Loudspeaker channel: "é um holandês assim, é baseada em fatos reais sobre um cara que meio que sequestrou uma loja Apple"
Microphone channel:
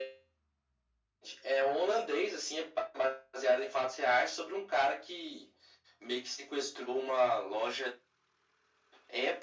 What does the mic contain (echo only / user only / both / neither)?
echo only